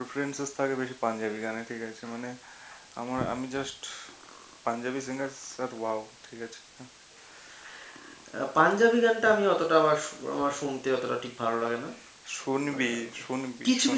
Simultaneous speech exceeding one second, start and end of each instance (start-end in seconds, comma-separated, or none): none